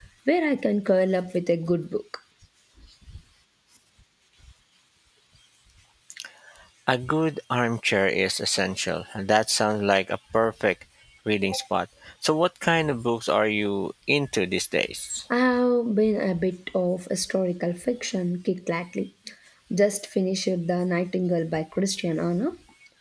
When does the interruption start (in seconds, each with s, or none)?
none